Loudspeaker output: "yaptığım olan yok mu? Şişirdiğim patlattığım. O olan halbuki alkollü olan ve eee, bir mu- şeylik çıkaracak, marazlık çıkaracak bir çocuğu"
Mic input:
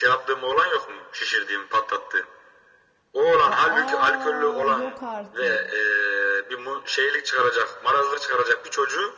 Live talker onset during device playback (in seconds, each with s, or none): 3.5 s